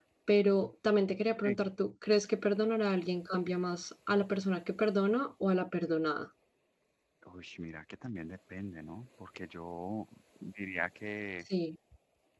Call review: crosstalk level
none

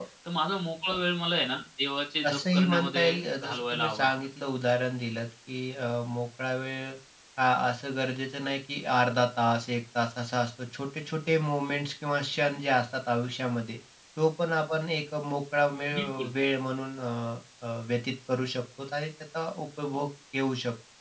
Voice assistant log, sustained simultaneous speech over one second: present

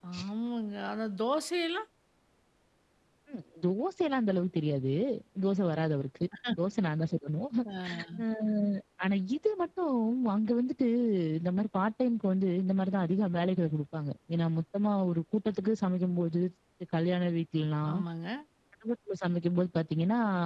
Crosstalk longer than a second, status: none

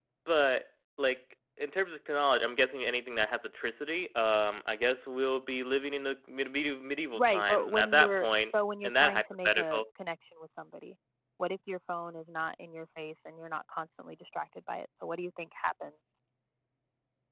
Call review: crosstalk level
present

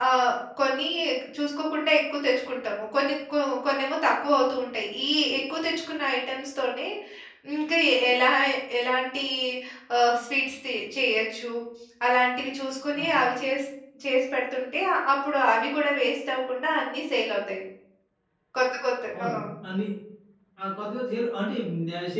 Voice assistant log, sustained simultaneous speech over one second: none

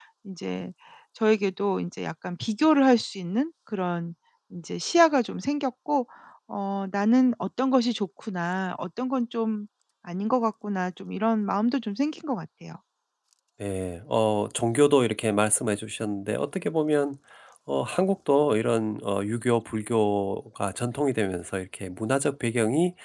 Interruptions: none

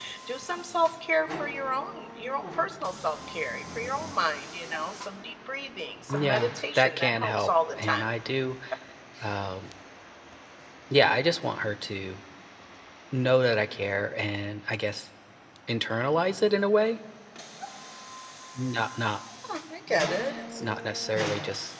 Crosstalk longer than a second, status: present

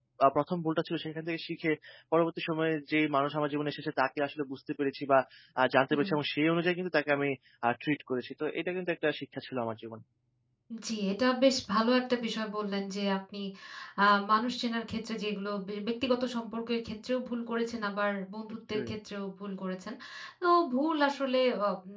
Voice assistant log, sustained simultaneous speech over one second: none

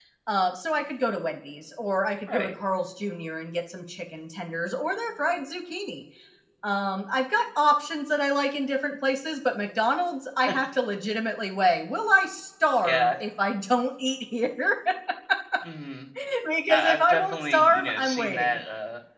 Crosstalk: present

